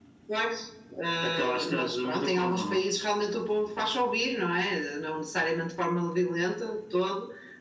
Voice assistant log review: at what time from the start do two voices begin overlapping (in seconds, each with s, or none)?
1.2 s